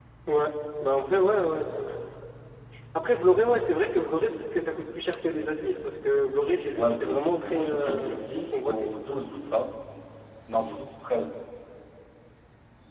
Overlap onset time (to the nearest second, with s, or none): 7 s